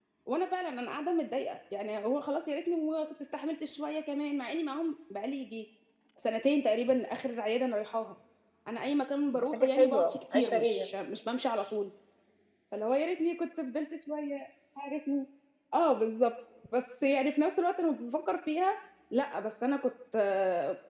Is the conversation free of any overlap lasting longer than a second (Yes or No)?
No